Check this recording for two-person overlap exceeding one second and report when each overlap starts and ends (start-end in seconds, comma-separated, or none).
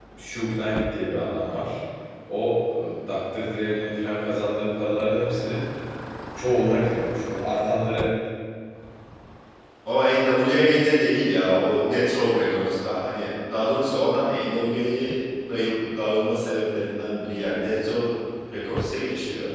none